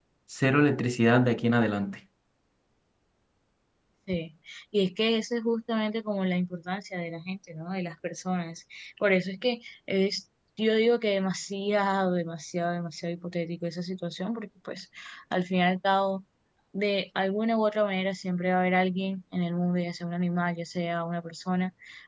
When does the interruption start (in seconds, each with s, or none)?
none